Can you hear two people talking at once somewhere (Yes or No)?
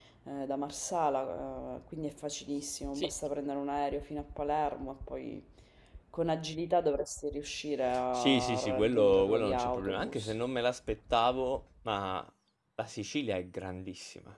Yes